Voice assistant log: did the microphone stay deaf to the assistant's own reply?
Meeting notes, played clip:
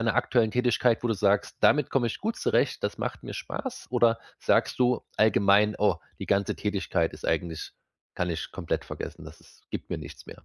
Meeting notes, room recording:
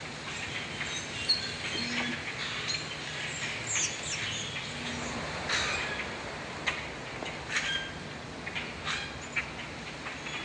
Yes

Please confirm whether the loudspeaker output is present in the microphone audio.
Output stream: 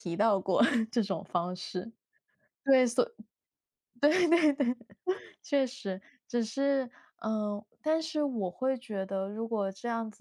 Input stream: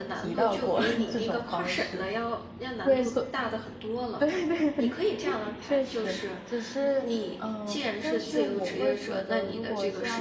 Yes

